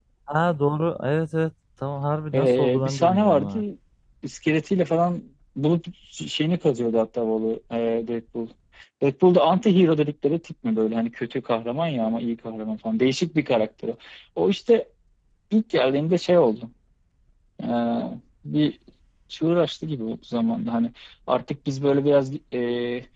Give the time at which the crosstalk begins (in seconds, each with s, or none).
2.3 s